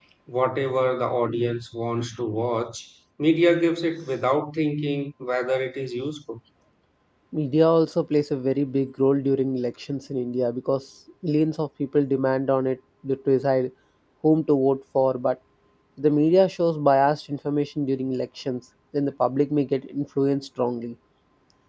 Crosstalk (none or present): none